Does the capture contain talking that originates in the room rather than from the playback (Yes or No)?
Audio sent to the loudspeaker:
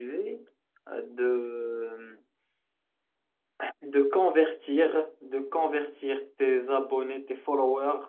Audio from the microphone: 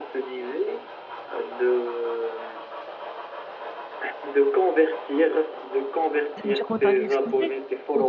Yes